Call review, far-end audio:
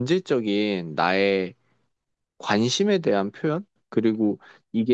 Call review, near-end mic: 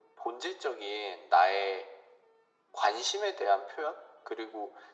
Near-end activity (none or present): none